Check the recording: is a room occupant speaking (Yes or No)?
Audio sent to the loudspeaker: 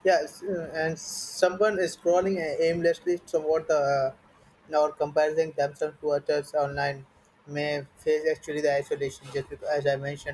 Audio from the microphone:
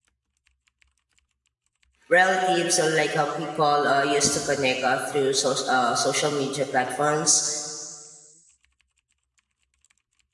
Yes